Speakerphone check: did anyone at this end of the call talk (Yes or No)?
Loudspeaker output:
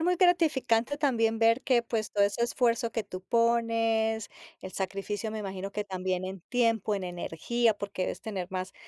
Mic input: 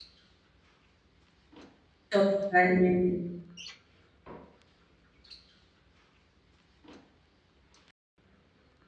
Yes